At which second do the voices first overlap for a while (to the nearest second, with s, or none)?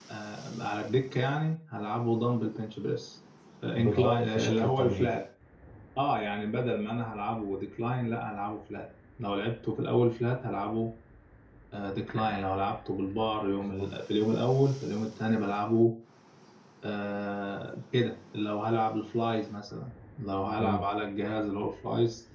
4 s